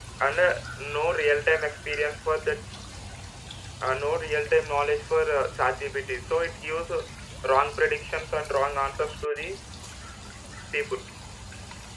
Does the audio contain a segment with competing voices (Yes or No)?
No